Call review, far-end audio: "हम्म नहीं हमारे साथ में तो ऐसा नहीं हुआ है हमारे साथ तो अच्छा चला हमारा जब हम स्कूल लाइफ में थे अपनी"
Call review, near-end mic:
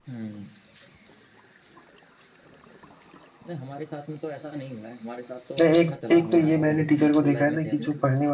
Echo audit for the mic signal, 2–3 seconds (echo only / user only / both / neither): neither